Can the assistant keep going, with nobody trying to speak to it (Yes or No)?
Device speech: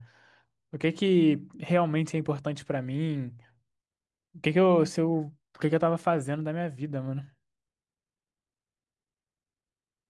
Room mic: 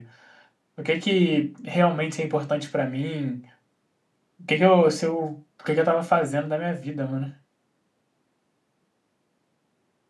Yes